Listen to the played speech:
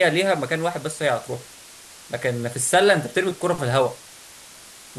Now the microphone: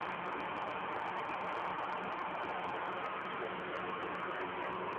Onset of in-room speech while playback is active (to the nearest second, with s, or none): none